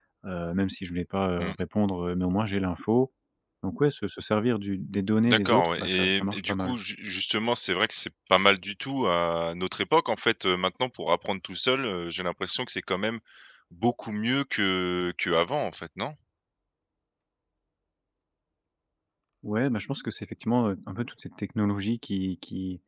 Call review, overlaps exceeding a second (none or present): present